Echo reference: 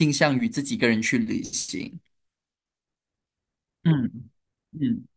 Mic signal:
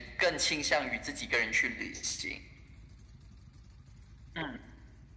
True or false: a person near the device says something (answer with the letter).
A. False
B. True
A